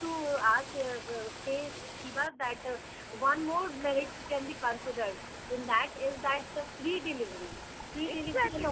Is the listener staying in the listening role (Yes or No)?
No